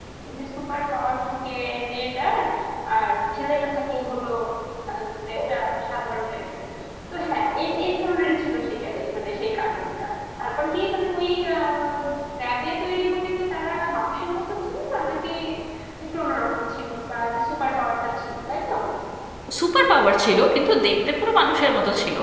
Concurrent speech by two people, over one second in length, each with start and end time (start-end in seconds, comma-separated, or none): none